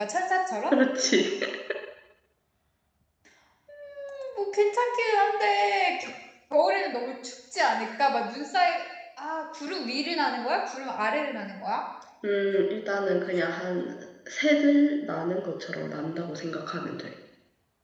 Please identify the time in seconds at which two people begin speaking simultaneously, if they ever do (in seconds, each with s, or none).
none